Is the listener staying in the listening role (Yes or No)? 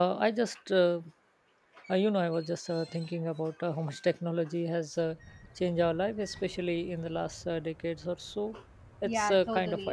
No